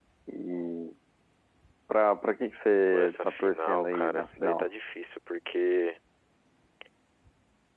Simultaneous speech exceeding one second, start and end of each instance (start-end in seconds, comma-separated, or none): 2.9-4.7